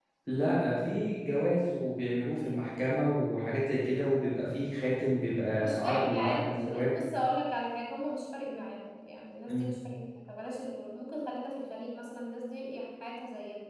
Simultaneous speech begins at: 6 s

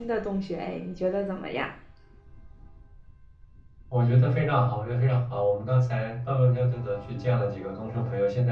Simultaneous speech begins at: none

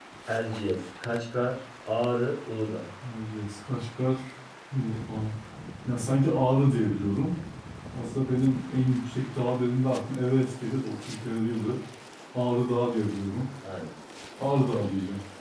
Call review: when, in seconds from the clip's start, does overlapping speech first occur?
none

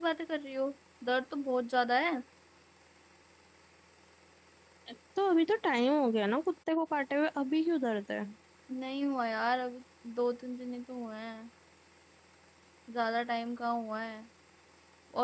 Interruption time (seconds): none

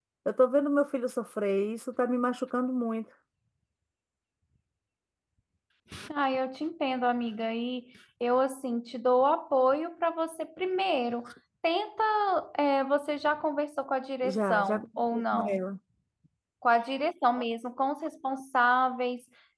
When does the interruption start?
14 s

